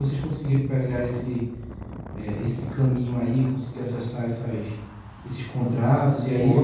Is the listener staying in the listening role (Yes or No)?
No